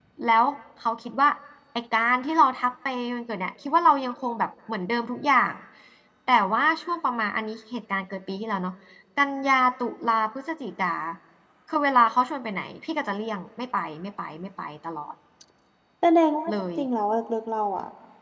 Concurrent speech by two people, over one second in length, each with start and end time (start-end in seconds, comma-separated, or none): none